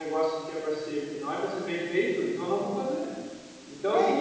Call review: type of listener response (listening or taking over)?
listening